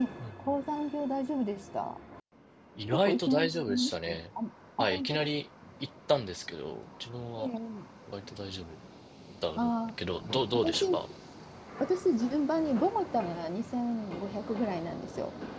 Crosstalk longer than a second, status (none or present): present